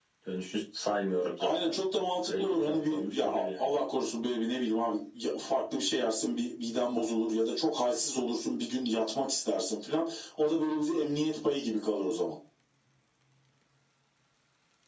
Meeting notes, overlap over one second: present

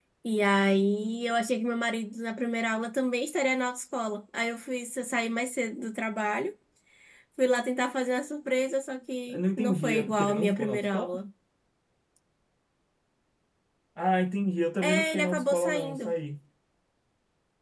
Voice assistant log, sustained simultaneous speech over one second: present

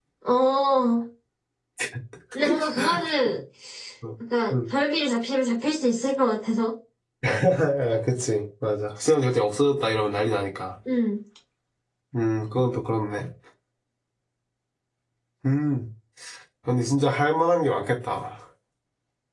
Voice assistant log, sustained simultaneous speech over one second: none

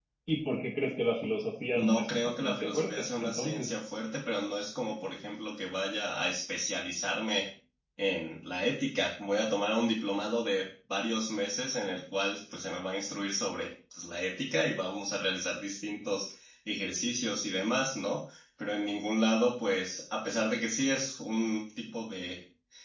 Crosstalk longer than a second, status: present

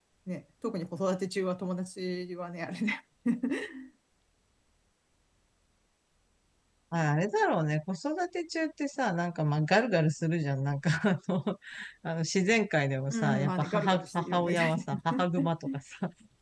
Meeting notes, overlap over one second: present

